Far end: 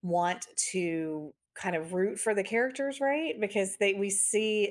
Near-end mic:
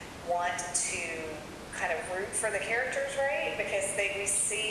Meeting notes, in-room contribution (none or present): none